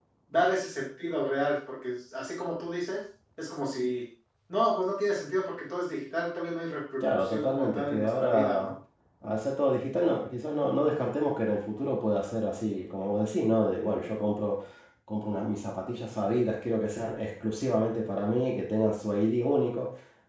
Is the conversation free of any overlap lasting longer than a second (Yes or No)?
No